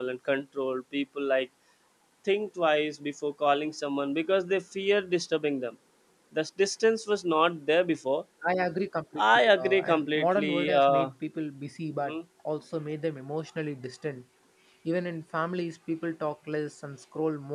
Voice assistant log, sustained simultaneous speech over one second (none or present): present